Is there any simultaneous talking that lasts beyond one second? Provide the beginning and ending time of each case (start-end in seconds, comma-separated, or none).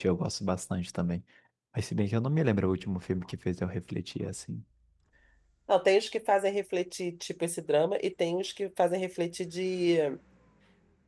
none